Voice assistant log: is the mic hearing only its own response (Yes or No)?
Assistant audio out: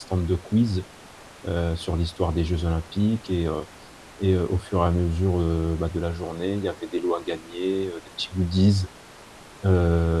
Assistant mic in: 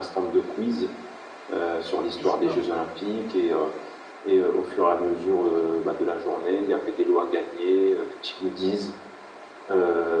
No